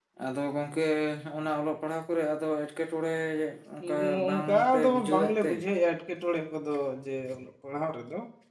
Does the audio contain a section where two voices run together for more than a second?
Yes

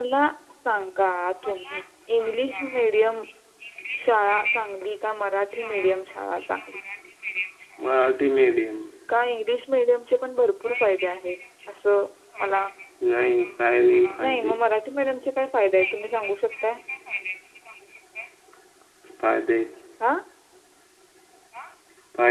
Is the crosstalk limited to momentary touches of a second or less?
Yes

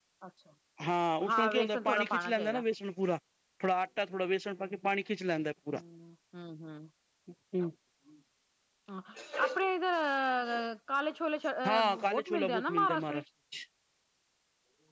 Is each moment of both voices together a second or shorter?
No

